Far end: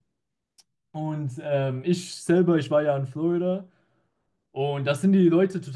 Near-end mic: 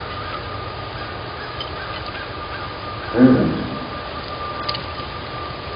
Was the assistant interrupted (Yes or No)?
Yes